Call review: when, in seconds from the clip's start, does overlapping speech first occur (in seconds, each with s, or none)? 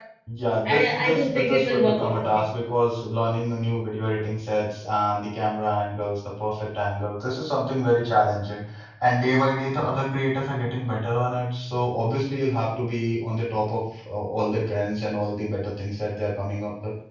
0.6 s